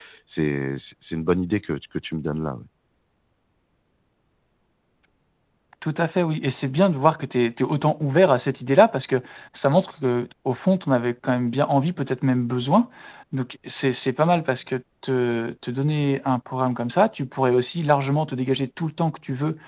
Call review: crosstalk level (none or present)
none